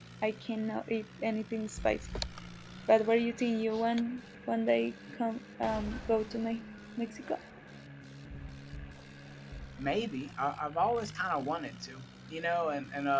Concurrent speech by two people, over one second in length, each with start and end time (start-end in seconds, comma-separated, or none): none